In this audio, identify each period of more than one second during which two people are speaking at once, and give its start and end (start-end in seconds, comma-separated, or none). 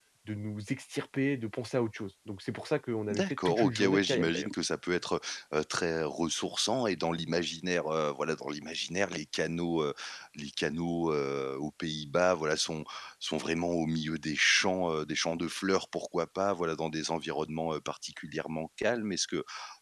3.1-4.5